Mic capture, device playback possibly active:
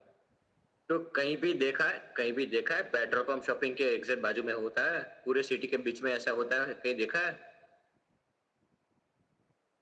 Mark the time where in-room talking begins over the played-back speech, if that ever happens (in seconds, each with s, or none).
none